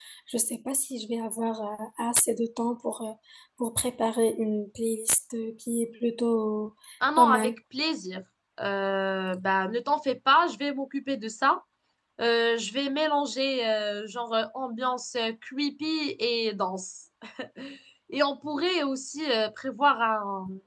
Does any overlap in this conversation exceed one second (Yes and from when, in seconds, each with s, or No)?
No